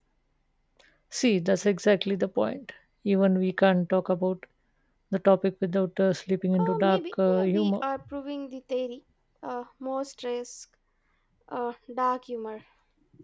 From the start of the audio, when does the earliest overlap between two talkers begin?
6.5 s

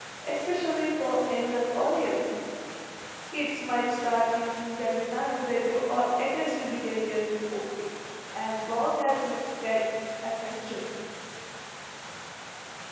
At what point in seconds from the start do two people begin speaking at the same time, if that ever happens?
none

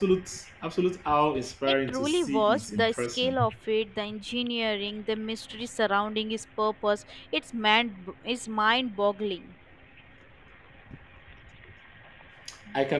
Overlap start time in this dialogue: 1.9 s

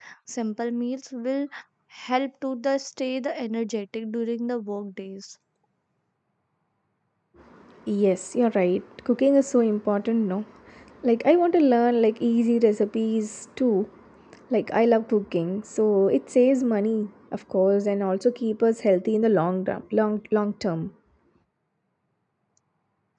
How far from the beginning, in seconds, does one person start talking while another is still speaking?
none

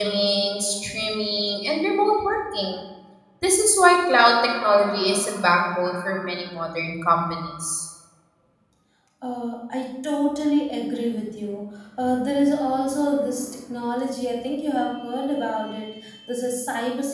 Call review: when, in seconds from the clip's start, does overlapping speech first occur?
none

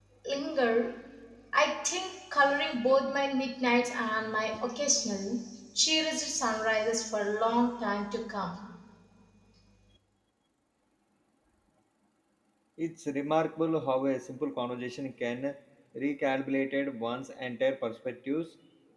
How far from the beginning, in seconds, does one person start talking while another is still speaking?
none

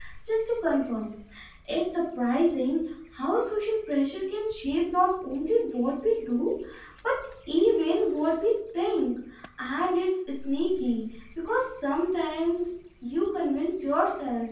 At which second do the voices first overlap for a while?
none

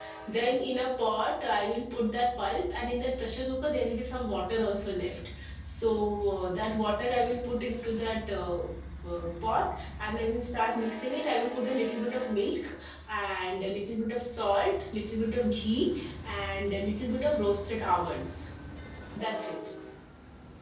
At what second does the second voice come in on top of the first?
none

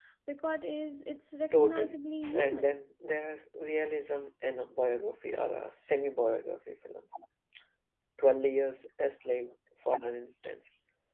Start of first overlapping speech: 1.5 s

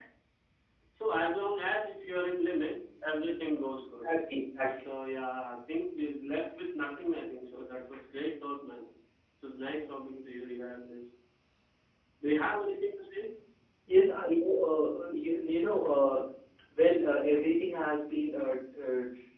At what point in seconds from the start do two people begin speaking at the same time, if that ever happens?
none

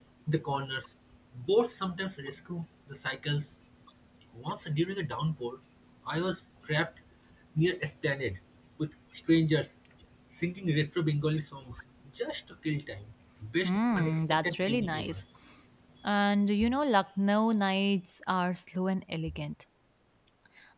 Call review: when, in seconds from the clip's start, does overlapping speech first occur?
13.6 s

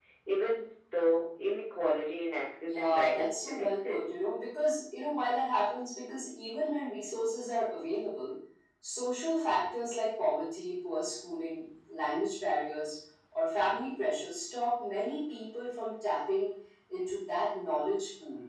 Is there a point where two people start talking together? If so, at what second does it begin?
2.6 s

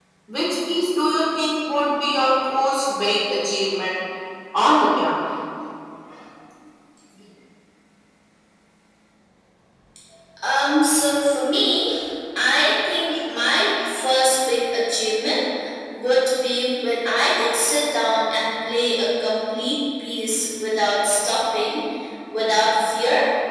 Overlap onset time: none

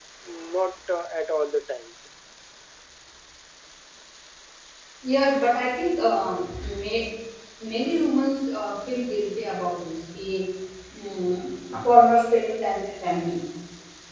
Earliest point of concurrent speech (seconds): none

